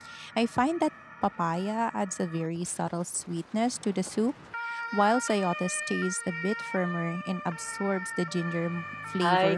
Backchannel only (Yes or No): No